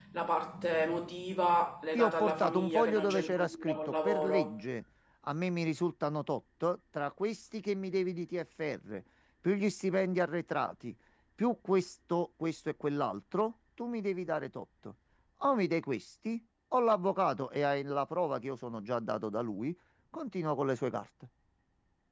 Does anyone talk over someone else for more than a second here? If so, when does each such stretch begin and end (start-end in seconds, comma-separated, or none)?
1.9-4.6